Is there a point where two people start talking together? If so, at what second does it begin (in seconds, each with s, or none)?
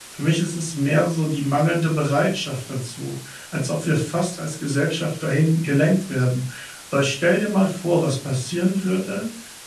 none